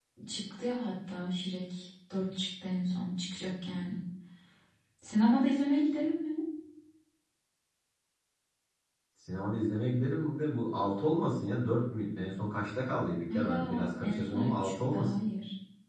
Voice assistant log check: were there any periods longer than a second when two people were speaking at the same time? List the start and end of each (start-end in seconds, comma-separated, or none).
13.3-15.2